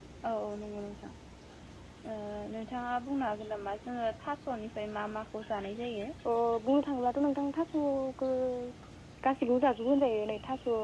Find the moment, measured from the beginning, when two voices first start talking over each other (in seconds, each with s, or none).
none